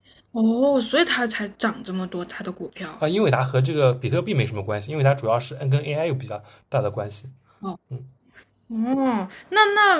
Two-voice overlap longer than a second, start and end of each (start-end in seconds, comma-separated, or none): none